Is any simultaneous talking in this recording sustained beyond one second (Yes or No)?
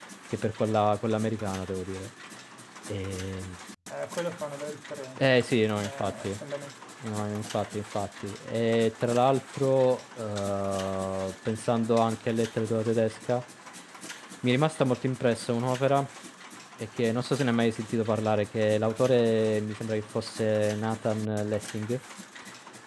No